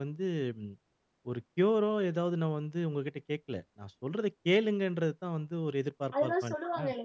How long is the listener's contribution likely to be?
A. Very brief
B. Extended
B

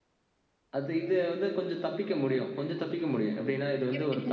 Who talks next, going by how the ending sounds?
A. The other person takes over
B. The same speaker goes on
B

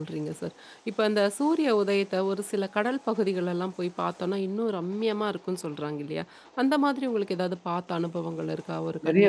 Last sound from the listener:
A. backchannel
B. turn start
B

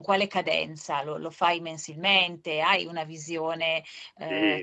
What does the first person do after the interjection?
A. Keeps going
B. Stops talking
B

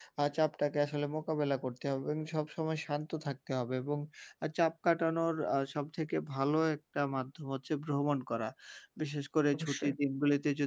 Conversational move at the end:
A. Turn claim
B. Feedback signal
B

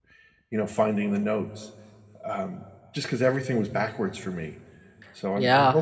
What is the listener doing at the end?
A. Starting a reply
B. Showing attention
A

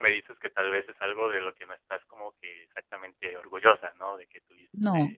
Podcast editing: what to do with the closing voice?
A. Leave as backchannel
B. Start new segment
A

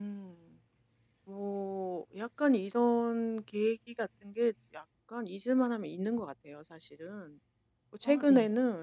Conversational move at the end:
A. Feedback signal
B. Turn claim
A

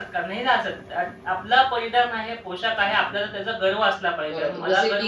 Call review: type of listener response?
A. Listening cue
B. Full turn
B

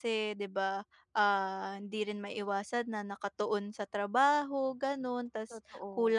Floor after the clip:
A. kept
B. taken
A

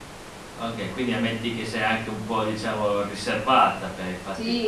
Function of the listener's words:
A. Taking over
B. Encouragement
A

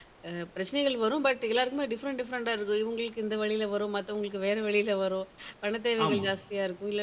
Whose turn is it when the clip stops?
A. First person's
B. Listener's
A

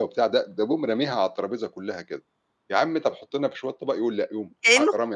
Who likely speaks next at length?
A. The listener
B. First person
A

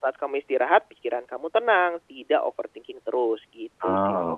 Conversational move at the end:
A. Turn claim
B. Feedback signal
A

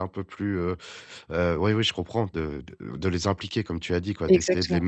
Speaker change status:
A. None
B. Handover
A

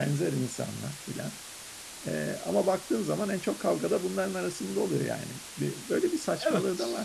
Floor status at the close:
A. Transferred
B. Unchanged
A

